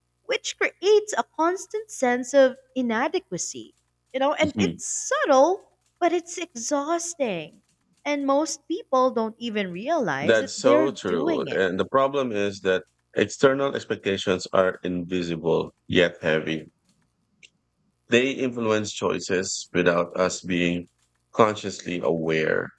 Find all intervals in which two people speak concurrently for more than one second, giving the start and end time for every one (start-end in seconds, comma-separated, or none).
10.2-11.6